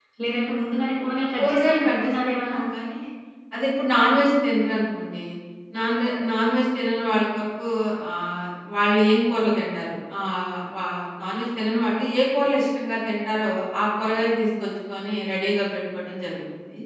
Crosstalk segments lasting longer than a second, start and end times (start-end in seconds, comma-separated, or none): 1.4-2.6